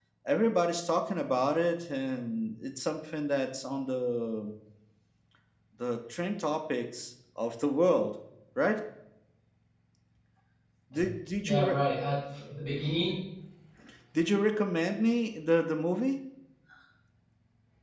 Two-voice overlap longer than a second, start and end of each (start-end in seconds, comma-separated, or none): none